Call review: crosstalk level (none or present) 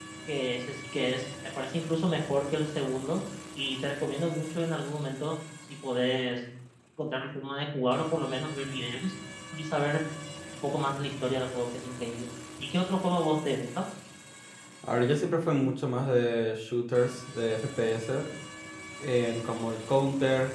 none